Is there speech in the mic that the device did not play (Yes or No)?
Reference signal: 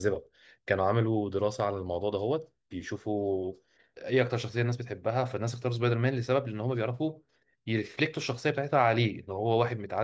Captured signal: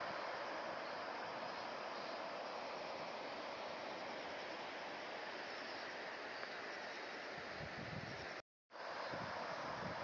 No